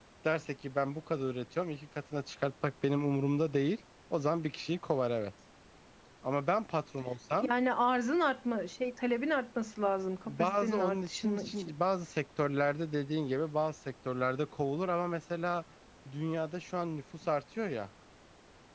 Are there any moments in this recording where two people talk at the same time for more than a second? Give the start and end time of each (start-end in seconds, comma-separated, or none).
10.2-11.7